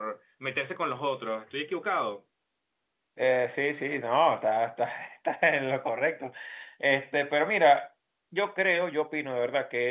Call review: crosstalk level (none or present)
none